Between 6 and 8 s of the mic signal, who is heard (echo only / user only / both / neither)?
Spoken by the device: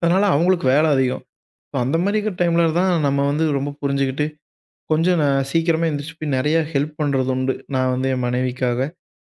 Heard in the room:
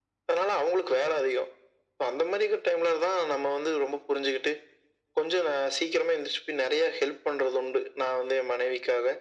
echo only